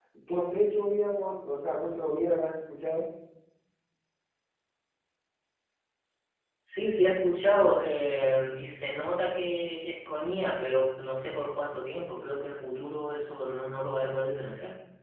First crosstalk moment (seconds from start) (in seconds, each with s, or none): none